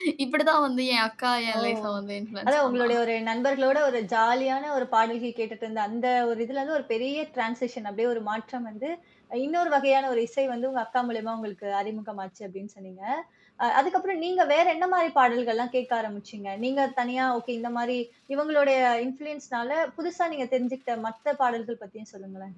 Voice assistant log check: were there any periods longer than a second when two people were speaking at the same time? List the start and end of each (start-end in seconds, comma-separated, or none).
none